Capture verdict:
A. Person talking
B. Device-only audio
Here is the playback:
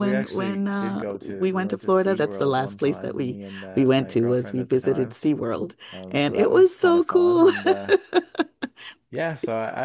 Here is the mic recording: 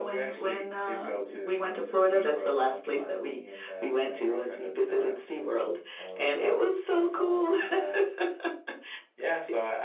B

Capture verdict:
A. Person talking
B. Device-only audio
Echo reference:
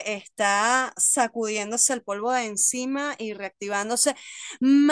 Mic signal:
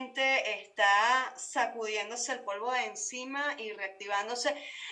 B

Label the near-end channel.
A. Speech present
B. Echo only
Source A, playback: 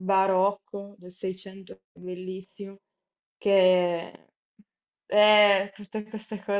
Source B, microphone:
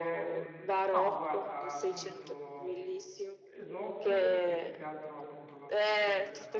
A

